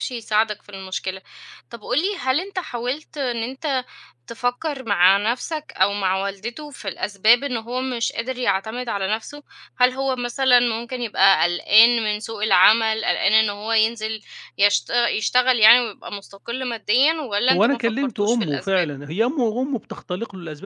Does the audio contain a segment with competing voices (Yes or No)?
Yes